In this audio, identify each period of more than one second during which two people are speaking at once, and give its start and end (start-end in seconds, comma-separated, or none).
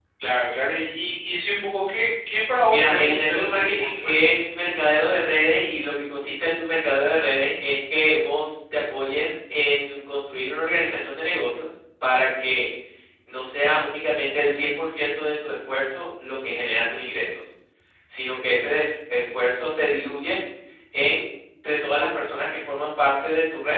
2.7-4.4